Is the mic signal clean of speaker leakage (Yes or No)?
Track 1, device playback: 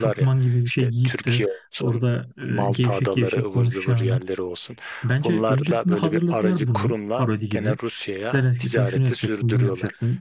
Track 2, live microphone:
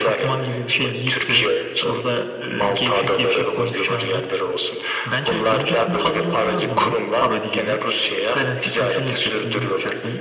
No